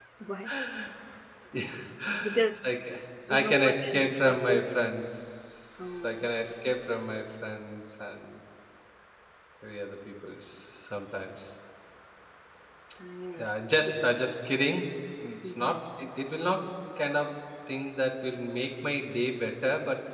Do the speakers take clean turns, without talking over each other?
No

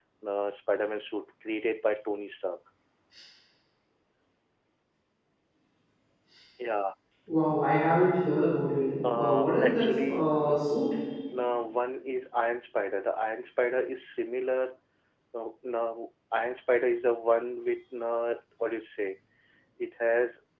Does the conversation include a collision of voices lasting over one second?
Yes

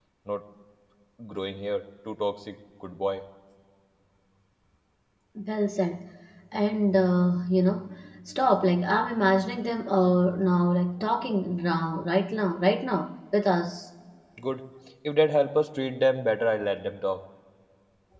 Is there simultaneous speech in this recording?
No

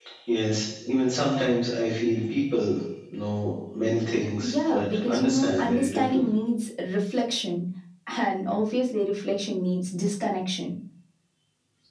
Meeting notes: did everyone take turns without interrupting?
No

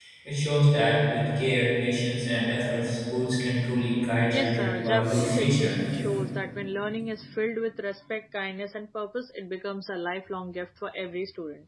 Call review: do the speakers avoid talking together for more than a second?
No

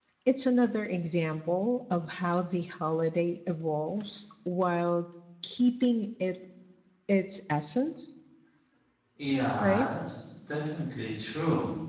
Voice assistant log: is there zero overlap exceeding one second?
Yes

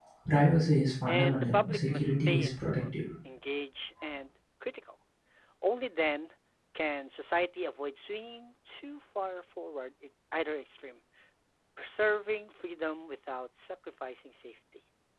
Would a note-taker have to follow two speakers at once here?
Yes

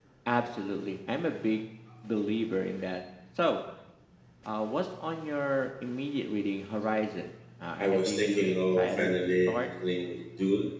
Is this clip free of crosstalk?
No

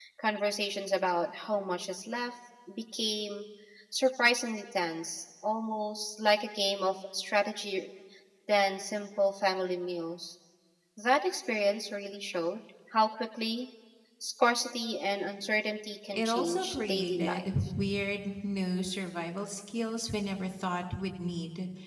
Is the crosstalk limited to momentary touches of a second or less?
No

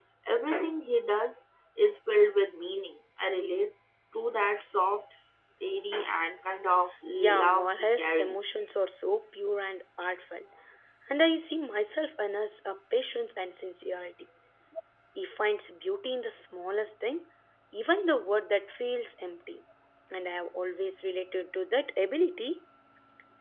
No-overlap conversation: No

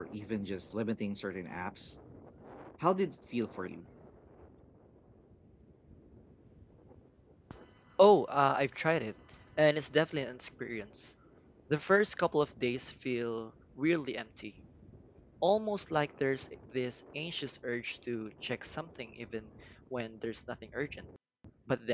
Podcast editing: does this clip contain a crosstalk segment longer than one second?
No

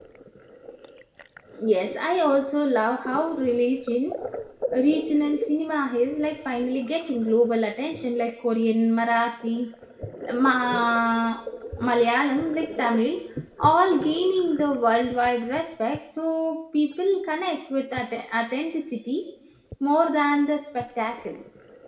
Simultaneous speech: No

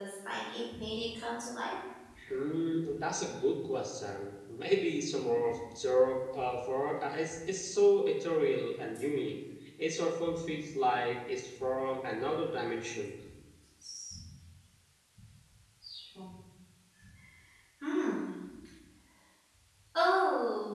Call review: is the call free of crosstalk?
Yes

